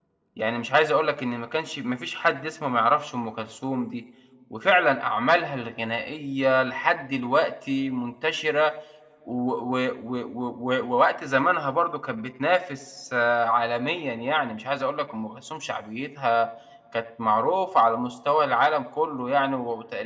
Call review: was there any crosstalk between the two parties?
No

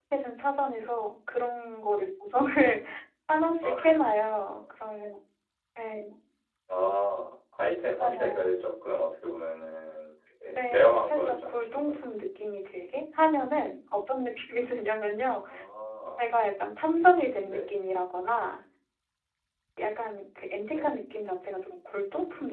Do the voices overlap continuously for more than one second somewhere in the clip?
Yes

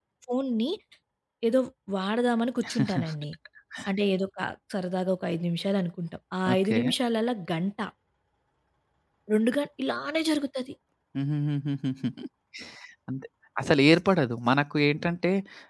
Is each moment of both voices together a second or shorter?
Yes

